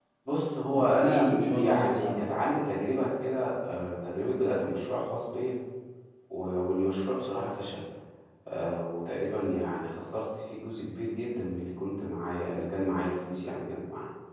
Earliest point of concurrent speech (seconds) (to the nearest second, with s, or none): 1 s